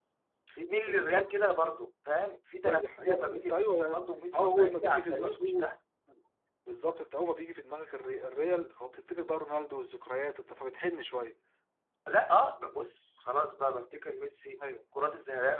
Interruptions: present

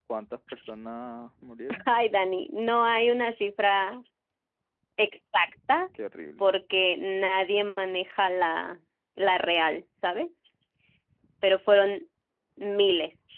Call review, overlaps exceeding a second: none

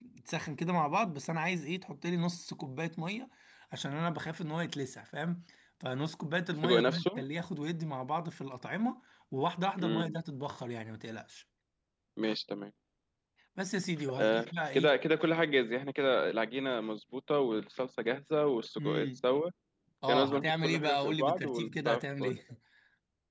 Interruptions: present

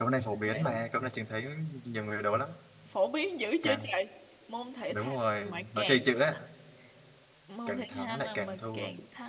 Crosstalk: present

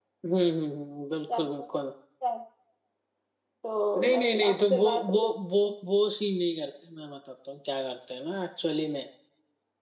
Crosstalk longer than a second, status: present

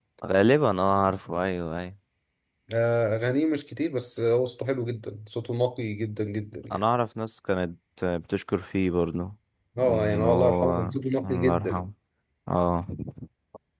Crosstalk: present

